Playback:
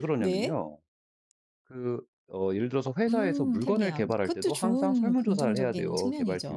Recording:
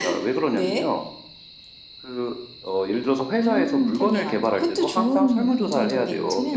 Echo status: present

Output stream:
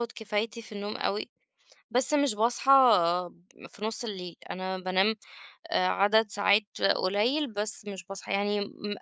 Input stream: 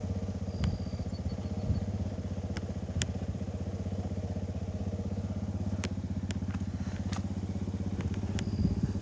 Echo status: none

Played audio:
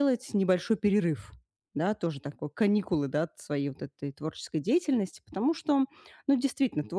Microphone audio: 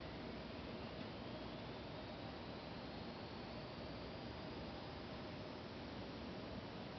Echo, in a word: none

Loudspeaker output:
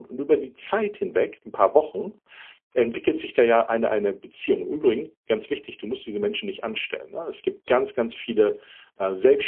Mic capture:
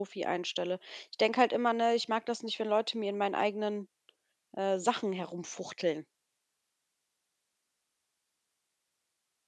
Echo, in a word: none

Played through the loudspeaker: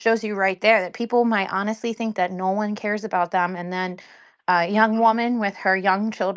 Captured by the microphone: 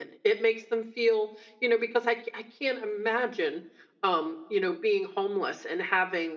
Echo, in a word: none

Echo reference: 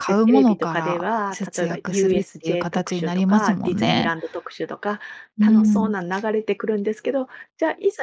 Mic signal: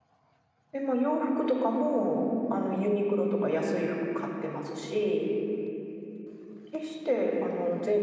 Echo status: none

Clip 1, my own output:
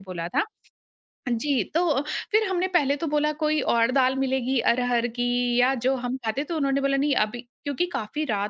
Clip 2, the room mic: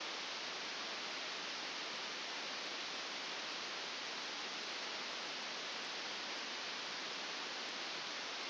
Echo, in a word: none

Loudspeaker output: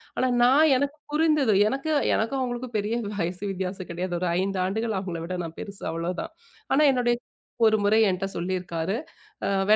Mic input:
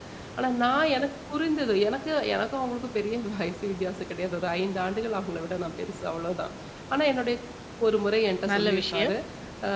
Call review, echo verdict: present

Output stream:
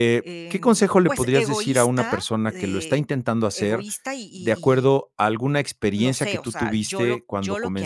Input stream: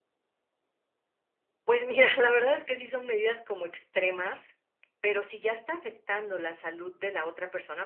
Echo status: none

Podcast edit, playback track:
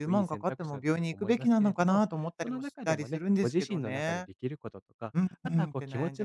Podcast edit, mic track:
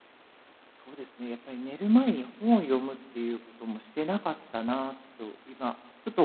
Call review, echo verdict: none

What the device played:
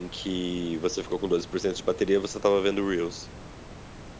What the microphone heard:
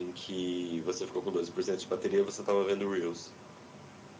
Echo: present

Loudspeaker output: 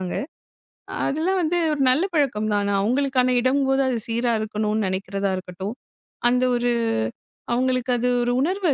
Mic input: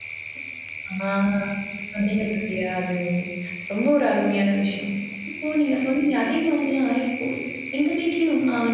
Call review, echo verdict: none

